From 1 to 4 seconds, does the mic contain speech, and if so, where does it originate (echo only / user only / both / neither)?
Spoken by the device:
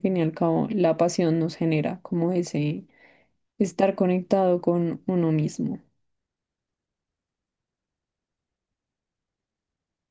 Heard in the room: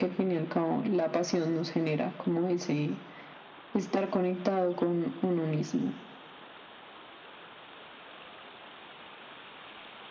echo only